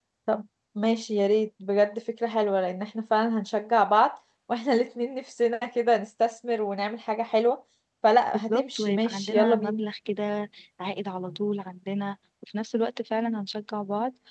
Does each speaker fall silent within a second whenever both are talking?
No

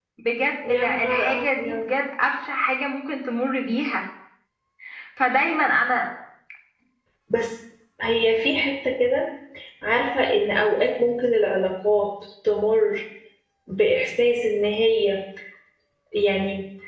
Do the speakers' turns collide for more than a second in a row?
Yes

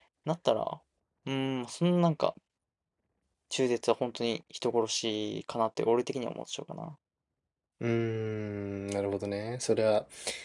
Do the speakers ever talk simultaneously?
No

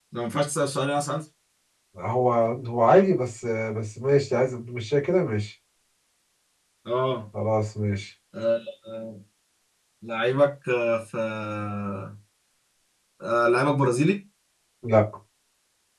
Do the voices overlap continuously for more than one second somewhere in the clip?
No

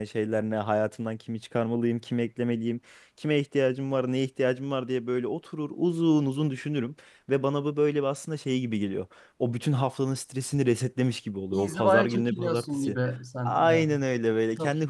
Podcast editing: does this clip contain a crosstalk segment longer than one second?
Yes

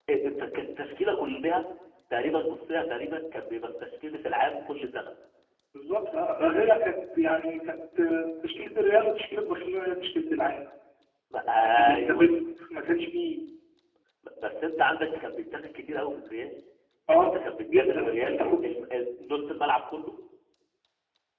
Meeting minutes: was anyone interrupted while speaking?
Yes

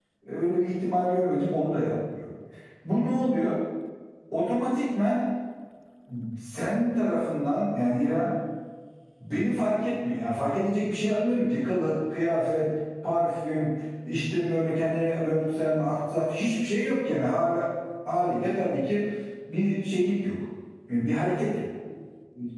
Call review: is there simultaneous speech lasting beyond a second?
No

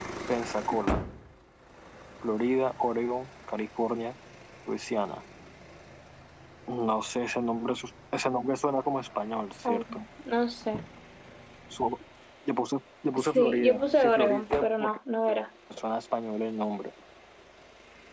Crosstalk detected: Yes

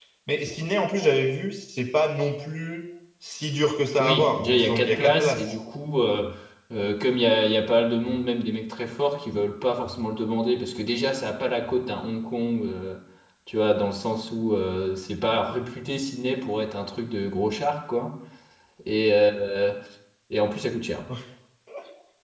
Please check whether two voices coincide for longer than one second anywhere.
Yes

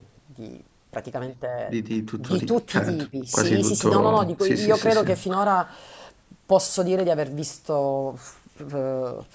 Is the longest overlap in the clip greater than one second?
Yes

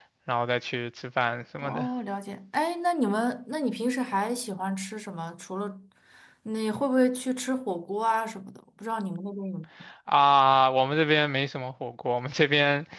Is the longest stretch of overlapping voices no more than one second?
Yes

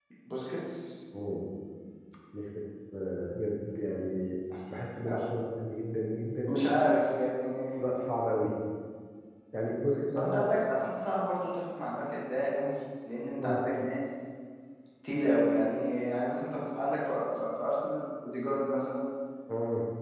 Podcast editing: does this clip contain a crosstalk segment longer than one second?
No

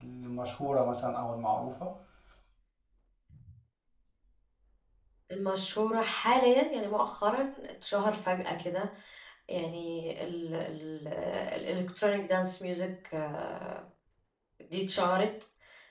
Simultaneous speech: No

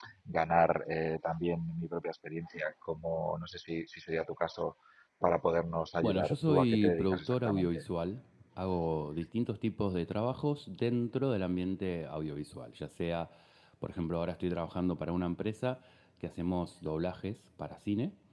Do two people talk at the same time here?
Yes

